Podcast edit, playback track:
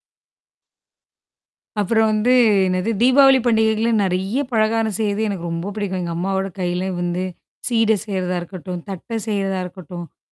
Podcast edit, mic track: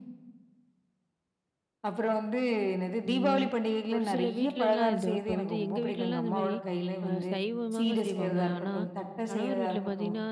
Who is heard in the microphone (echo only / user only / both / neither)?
both